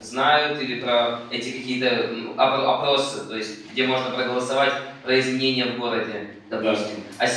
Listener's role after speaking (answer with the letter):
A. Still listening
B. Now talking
A